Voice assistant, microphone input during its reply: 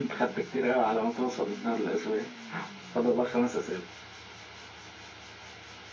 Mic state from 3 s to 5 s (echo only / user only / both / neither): echo only